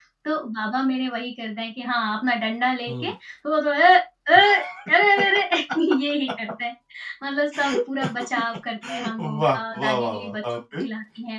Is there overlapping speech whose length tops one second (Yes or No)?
Yes